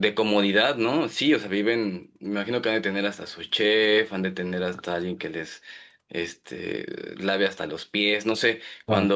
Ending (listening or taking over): listening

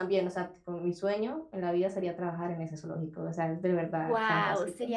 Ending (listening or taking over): taking over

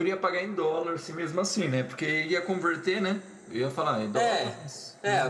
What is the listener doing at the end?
taking over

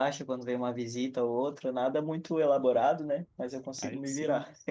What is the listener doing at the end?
taking over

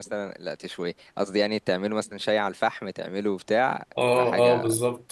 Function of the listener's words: taking over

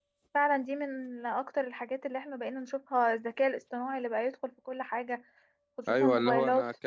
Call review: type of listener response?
taking over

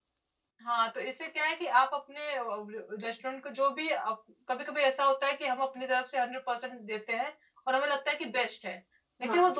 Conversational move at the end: listening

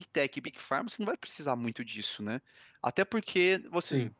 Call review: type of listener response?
listening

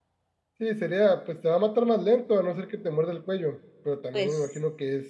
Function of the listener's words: listening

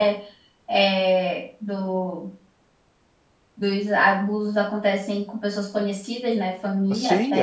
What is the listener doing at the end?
taking over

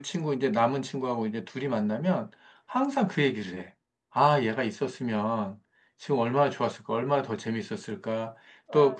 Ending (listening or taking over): listening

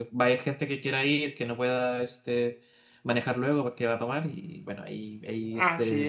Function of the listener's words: taking over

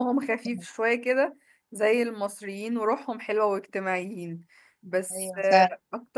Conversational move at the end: listening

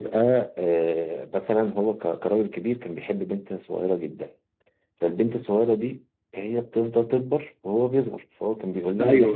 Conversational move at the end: listening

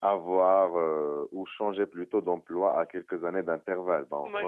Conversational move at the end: taking over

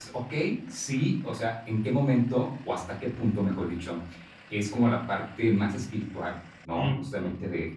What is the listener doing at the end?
listening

